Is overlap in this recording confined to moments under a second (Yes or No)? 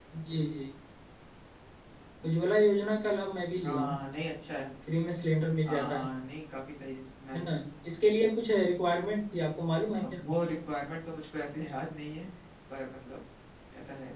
Yes